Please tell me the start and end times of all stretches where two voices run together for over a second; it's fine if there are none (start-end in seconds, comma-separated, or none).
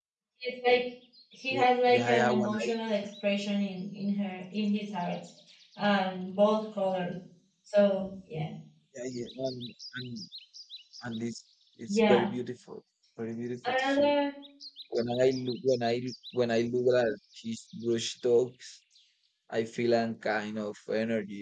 1.5-2.7